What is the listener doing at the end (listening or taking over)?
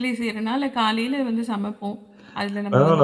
taking over